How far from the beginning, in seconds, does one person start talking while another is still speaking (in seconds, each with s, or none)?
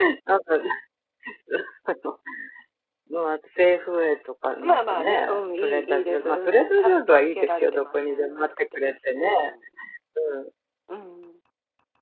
4.6 s